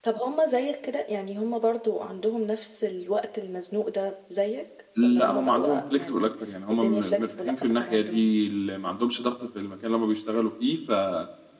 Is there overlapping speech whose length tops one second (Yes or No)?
Yes